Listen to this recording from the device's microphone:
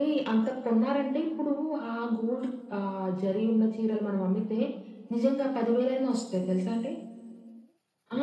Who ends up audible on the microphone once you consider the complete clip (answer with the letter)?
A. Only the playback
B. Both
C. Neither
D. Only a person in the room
A